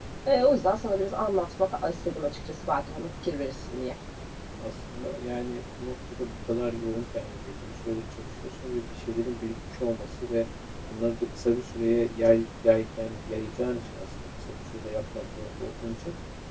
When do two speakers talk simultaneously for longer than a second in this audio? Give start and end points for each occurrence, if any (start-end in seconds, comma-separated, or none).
none